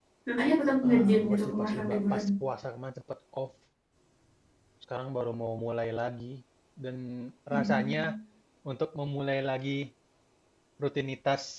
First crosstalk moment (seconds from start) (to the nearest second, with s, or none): 1 s